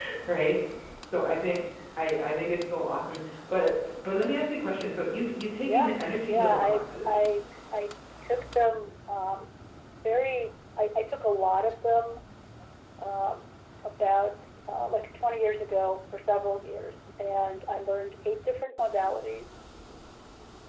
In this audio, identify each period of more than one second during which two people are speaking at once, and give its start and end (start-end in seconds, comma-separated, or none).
5.6-7.2